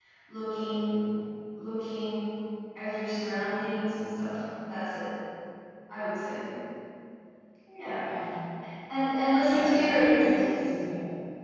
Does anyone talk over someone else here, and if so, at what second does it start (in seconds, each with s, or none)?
9.4 s